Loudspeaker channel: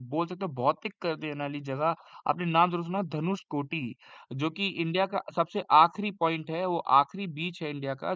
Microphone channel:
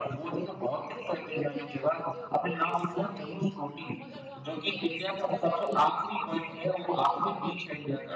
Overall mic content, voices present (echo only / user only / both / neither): both